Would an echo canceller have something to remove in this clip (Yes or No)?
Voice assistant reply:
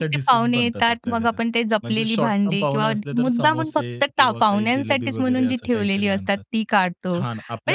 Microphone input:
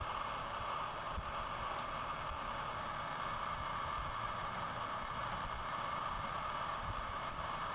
No